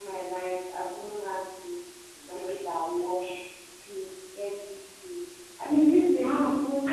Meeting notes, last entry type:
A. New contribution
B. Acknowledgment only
A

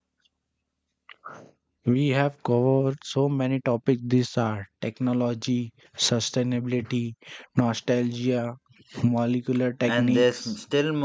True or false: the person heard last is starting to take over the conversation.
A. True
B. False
A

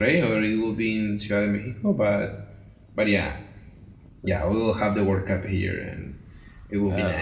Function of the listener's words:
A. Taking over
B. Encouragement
A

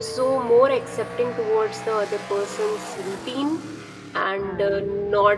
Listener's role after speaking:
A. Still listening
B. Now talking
A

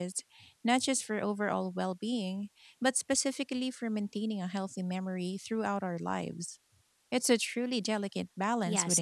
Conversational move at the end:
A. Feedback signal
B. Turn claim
B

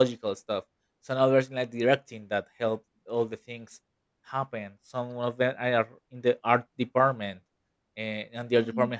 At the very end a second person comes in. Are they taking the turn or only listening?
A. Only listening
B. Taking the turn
A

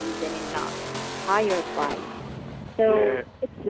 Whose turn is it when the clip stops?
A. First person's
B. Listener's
A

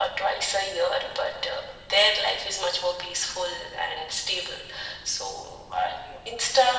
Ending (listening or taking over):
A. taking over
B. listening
A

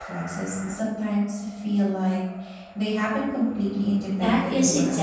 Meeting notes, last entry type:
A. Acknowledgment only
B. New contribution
B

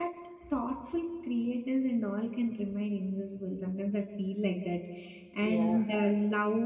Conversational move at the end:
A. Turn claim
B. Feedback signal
B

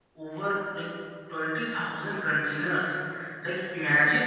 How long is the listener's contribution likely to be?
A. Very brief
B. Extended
A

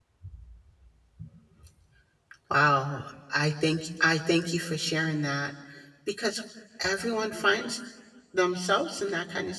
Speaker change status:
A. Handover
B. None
B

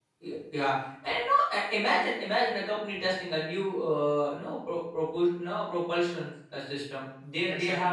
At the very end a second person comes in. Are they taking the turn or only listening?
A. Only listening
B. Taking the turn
A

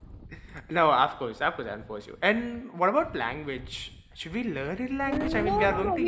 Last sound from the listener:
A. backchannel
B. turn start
B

